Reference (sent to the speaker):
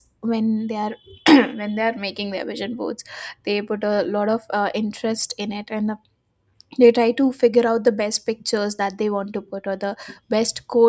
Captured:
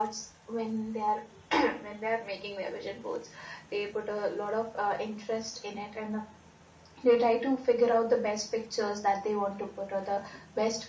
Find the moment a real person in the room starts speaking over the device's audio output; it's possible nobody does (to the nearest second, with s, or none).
none